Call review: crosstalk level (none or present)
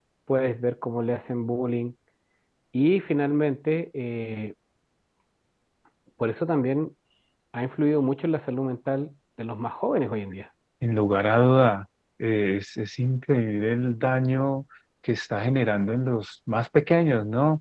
none